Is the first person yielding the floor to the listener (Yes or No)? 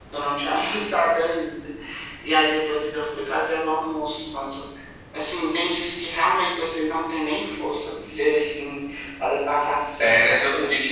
Yes